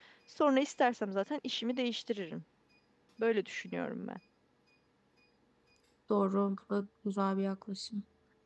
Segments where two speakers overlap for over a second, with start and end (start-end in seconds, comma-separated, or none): none